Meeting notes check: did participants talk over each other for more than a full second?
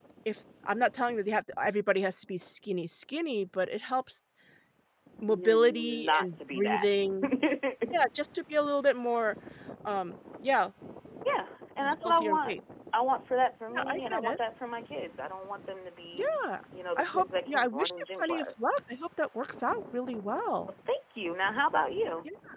Yes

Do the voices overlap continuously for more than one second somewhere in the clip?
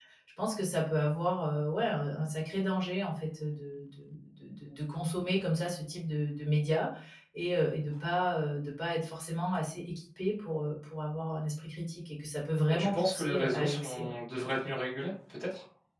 Yes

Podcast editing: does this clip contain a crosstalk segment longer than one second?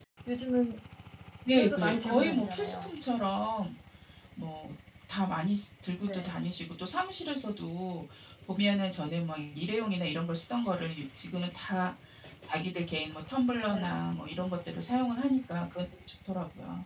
Yes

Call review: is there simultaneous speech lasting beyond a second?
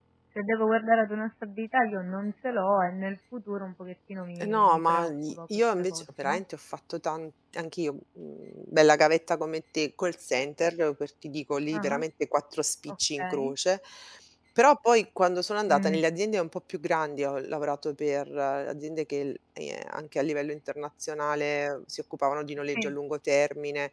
Yes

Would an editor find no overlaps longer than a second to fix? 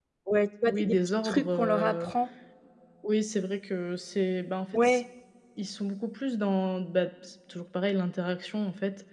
No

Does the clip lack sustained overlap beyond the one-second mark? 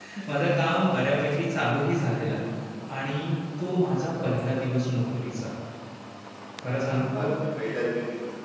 Yes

